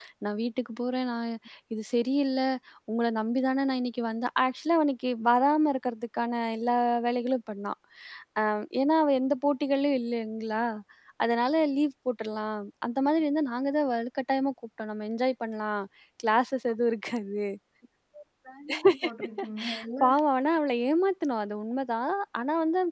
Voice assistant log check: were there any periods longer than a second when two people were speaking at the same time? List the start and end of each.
none

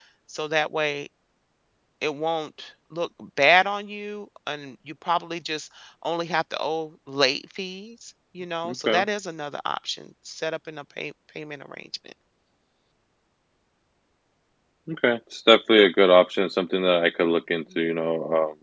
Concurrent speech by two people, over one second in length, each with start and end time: none

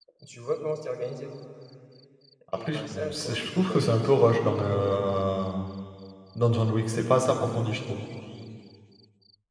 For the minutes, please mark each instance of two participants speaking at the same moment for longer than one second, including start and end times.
2.5-4.2

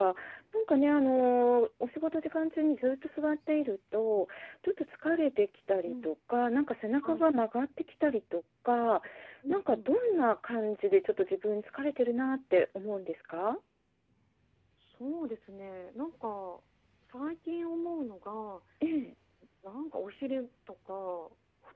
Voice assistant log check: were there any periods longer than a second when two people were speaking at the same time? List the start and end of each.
none

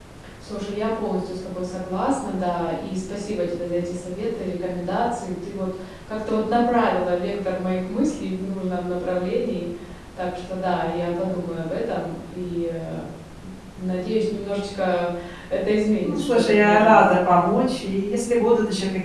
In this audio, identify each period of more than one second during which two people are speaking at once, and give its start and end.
16.0-17.3

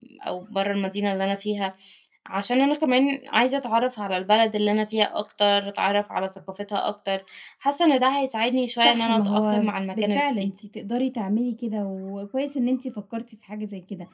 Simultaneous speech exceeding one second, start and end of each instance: 8.8-10.5

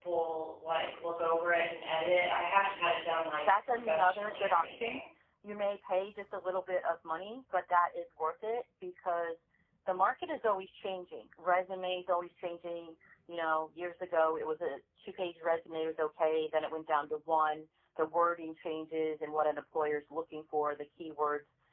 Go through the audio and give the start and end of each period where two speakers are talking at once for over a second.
3.4-5.0

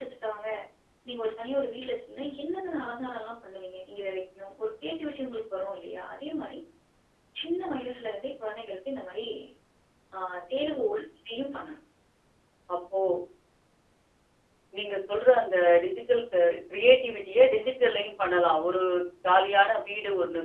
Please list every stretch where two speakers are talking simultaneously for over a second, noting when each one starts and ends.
none

